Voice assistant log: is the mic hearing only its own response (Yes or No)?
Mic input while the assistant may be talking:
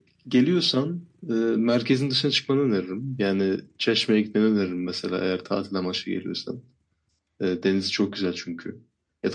Yes